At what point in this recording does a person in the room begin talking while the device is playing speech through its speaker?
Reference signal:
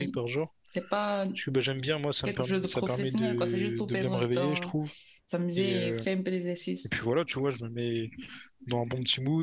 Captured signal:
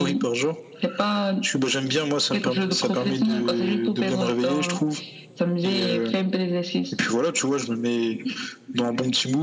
none

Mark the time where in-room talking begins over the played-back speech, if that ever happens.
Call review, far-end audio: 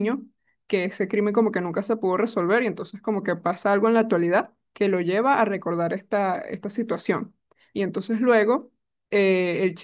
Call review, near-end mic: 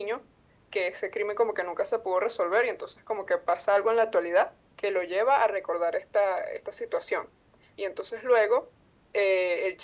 none

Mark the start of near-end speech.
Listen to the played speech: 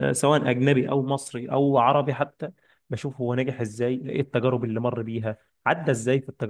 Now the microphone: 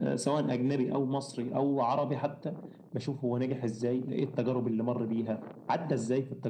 none

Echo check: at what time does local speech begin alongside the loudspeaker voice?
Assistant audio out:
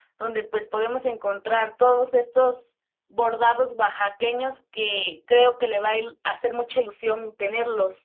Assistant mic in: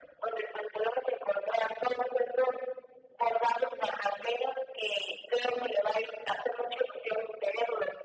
none

